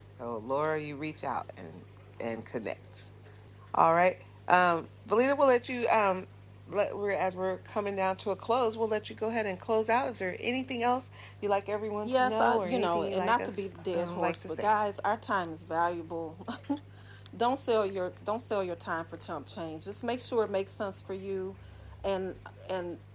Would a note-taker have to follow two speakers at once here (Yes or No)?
Yes